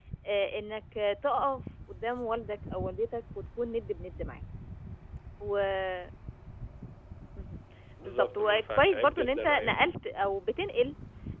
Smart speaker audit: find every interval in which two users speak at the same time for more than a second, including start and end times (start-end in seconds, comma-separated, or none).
8.1-9.7